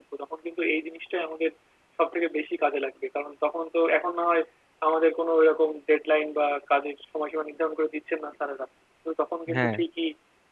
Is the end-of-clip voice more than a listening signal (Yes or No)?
No